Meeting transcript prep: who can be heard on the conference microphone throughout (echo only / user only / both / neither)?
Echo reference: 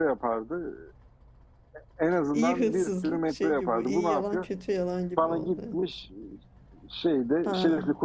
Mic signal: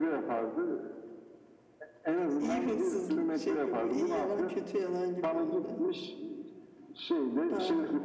echo only